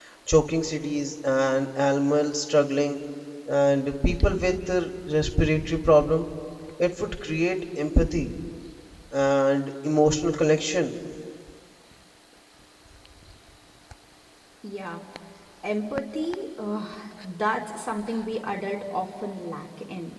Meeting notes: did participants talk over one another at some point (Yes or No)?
No